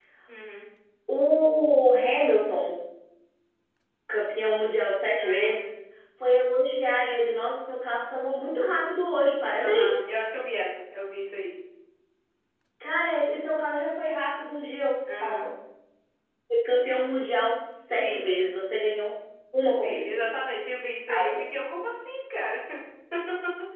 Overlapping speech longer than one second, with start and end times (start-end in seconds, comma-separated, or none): none